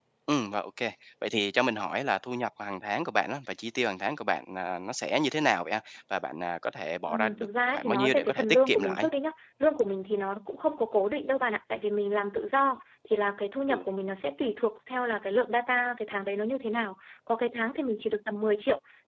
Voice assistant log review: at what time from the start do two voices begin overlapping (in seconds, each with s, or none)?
7.1 s